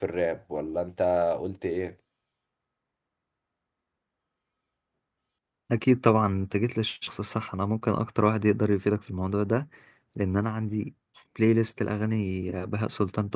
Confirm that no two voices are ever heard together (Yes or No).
Yes